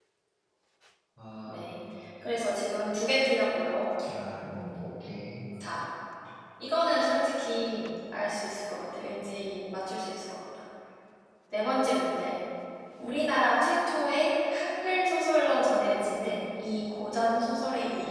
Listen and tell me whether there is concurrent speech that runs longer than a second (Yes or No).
No